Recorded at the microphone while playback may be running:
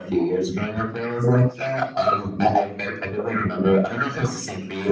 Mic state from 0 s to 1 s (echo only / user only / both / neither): echo only